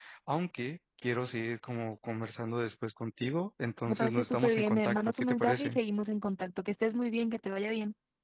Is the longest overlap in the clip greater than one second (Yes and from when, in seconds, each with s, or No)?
Yes, from 3.9 s